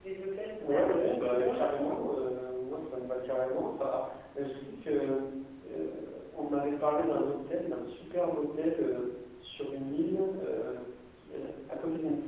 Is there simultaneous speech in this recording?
Yes, from 0.6 s

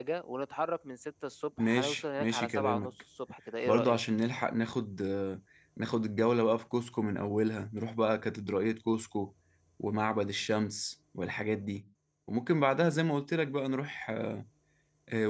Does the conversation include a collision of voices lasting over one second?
Yes, from 1.6 s

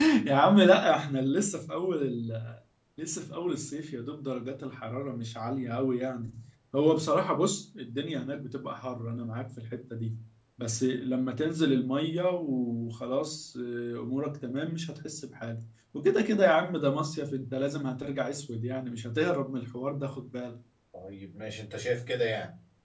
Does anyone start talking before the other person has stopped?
No

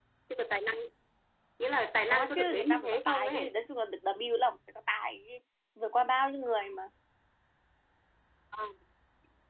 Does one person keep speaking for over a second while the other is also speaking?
Yes, from 2.1 s

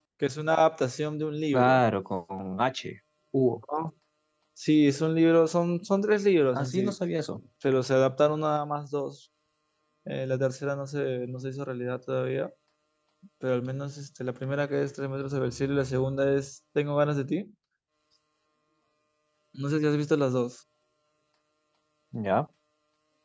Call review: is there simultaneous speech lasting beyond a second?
No

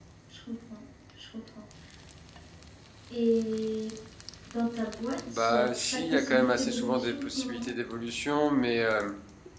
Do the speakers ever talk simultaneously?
Yes, from 5.3 s

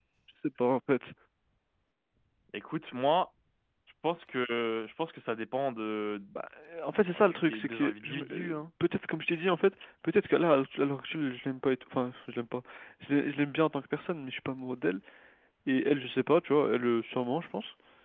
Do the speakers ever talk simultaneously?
Yes, from 7.1 s

